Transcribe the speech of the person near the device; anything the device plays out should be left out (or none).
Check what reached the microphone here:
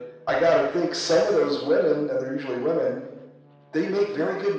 none